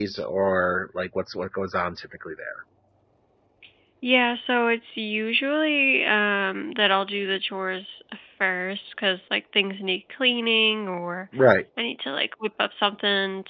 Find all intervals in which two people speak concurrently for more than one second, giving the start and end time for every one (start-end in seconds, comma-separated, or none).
none